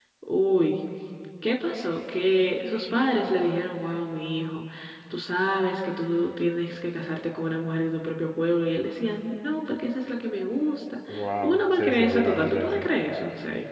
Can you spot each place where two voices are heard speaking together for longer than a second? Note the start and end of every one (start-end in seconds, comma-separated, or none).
11.1-12.9